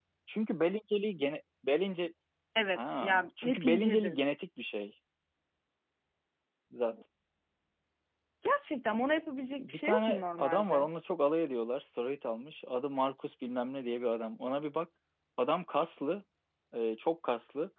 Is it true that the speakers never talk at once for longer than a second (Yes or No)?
No